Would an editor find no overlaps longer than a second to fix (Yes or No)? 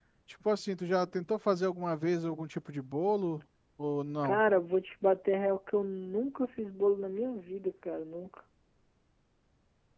Yes